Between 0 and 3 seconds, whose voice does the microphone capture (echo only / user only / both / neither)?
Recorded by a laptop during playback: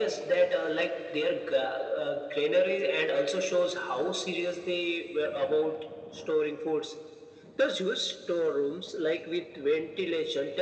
echo only